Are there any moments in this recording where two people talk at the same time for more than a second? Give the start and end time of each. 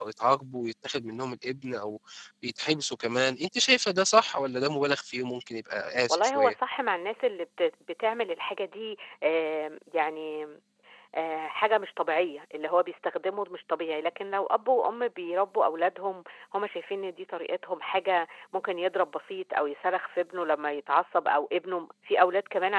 none

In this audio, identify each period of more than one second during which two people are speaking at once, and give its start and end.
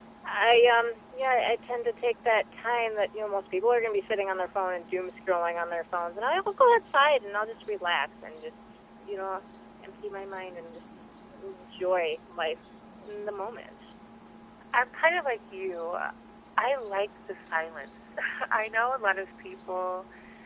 none

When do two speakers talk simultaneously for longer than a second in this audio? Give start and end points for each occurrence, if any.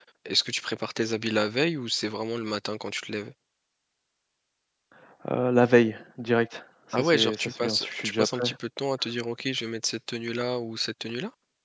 6.9-8.5

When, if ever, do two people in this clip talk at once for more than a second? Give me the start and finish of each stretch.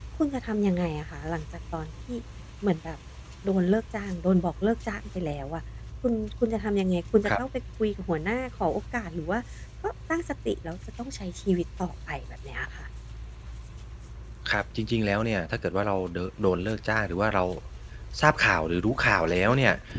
none

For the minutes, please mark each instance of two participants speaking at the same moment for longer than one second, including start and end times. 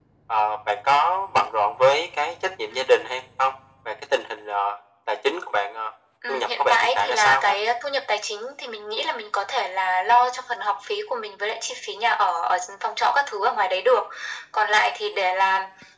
6.3-7.6

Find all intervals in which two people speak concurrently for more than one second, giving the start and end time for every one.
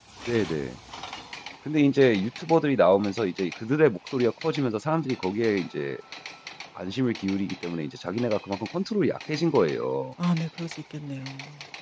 none

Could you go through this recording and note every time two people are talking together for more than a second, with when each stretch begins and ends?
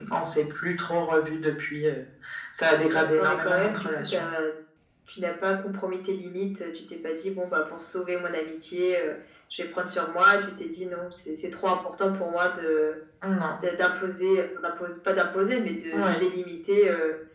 2.9-4.1

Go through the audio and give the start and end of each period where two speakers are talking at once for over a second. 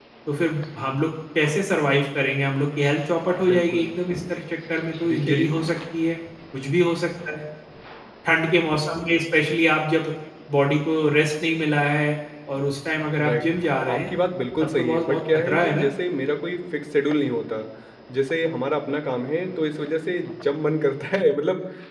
14.6-15.9

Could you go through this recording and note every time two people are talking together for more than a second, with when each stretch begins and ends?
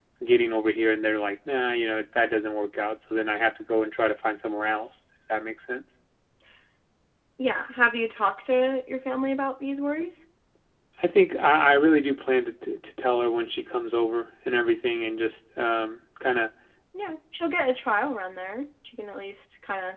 none

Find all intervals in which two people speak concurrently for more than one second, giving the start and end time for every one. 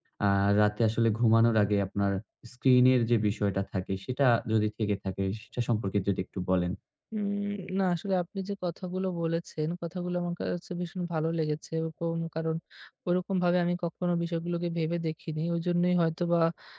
none

